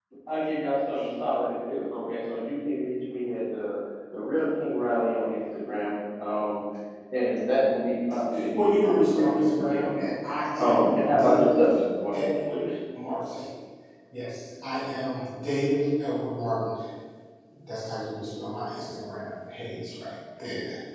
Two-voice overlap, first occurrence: 9 s

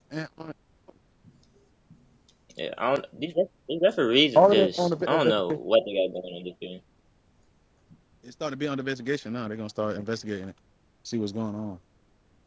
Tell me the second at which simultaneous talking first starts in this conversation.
4 s

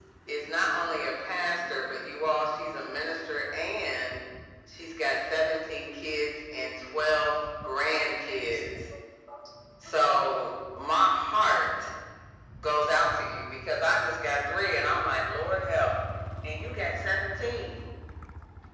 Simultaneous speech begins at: none

